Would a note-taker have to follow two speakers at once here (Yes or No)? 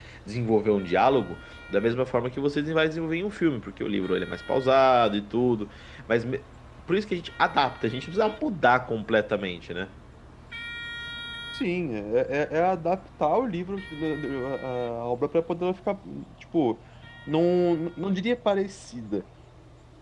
No